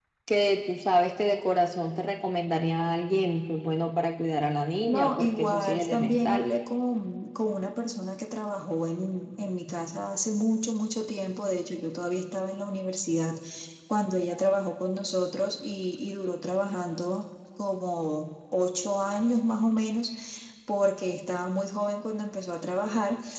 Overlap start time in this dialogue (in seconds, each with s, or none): 4.9 s